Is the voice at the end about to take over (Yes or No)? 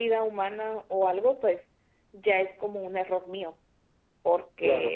No